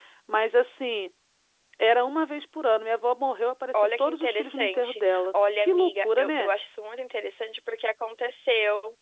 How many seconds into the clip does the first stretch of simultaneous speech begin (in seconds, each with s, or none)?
3.7 s